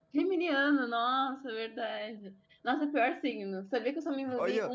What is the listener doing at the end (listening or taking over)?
taking over